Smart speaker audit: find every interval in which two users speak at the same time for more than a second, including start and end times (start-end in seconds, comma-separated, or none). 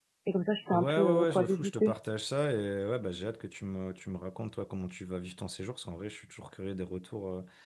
0.7-1.9